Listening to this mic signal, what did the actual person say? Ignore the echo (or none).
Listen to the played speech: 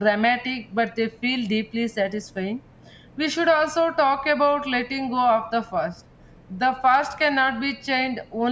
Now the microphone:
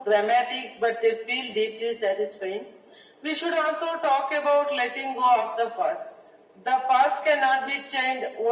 none